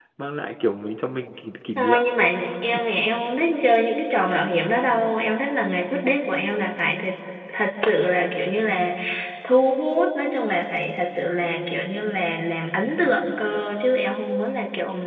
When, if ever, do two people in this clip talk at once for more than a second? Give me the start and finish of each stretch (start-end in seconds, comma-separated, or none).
none